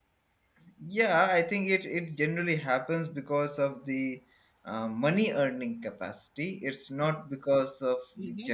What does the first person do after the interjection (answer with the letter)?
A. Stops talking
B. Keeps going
A